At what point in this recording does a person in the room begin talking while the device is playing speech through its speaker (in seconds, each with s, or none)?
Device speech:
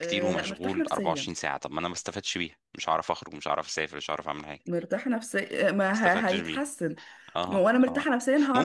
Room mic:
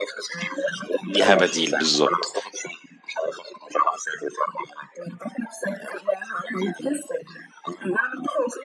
1.1 s